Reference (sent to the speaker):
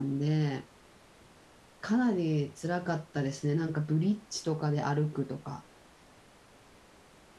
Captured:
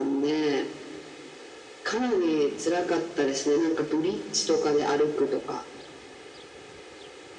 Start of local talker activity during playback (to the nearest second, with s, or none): none